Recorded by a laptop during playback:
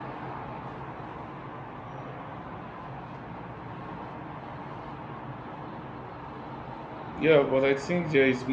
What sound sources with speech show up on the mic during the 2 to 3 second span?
neither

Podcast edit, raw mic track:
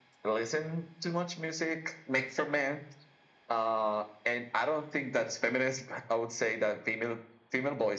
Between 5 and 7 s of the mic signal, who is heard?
echo only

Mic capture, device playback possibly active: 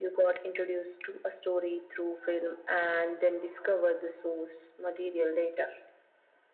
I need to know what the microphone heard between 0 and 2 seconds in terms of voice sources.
echo only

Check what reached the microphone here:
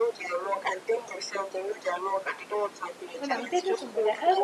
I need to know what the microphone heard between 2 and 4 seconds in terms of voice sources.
both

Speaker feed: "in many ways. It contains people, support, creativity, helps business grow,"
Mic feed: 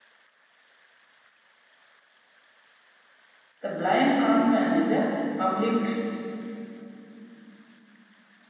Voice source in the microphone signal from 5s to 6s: user only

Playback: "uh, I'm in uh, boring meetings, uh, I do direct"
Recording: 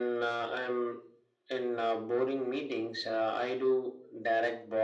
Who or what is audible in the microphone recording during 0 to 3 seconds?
echo only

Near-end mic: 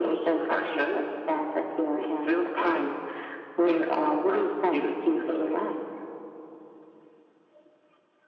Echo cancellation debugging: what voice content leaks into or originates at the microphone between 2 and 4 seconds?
echo only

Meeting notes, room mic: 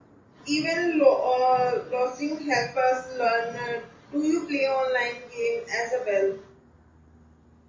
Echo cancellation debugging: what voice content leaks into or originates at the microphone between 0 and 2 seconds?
user only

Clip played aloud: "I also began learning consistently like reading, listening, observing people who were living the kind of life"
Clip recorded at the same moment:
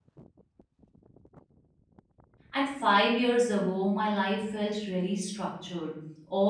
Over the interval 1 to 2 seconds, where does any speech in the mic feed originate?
neither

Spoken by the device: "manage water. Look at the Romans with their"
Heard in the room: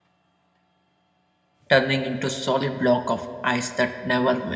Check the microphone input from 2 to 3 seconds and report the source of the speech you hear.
user only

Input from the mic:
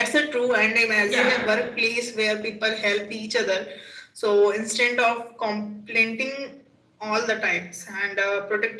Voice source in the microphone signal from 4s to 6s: echo only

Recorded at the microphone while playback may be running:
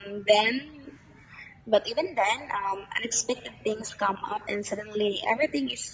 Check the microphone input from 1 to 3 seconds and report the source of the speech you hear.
echo only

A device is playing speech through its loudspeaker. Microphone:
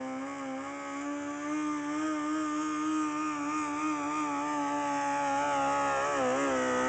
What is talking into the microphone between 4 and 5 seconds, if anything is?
neither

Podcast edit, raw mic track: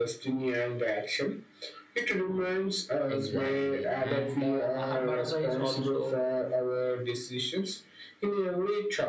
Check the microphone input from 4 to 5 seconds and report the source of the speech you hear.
both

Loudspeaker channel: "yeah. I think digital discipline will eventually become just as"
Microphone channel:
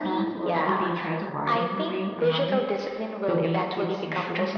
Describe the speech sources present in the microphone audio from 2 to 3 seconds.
both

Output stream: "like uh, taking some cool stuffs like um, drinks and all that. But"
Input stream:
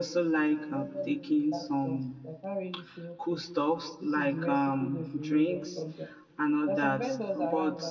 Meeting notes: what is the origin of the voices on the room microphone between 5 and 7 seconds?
both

